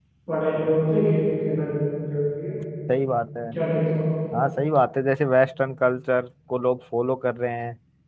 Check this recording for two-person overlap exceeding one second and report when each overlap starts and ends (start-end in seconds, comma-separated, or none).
none